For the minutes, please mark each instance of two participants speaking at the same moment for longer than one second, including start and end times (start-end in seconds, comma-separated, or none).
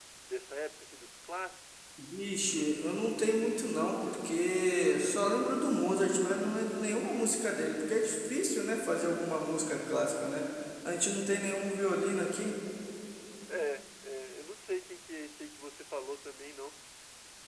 none